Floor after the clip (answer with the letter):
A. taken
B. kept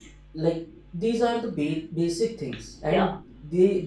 B